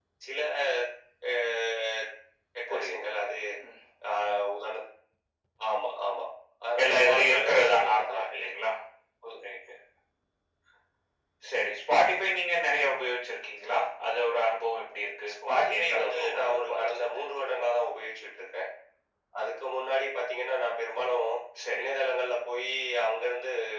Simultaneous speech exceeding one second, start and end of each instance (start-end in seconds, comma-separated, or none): 6.8-8.5, 15.5-17.6